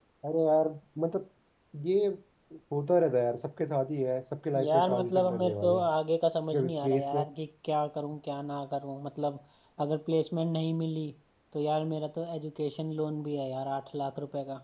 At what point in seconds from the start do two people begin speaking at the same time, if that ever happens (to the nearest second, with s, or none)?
5 s